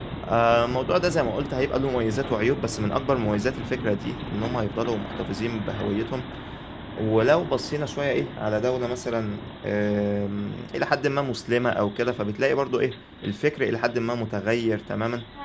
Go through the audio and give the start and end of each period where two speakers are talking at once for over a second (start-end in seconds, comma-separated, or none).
none